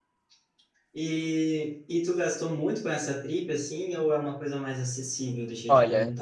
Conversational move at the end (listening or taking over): taking over